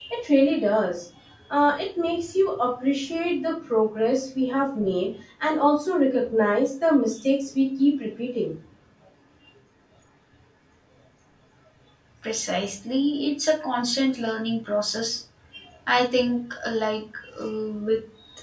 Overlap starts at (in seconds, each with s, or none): none